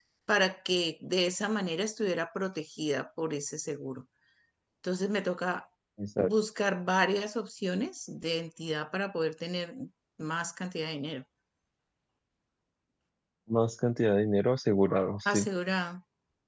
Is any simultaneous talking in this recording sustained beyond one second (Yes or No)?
No